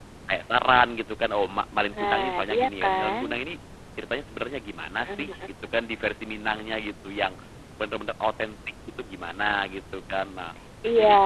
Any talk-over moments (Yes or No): Yes